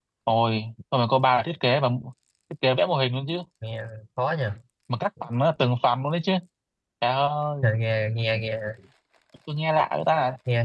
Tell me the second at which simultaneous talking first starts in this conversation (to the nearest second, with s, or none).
none